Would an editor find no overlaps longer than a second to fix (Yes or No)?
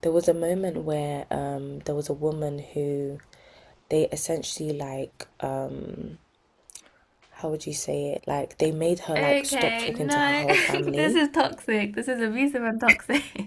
No